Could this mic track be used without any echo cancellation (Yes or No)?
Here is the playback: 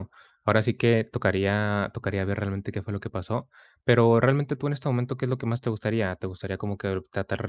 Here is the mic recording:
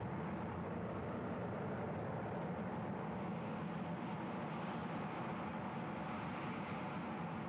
Yes